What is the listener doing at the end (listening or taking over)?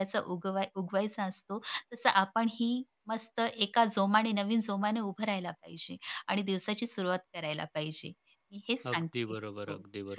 taking over